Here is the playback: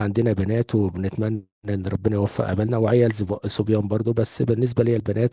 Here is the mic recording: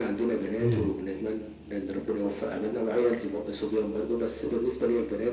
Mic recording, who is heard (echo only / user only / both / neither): both